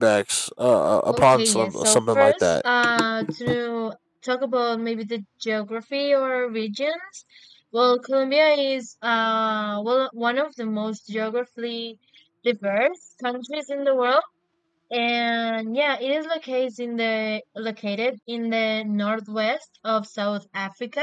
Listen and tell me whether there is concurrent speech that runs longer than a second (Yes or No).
Yes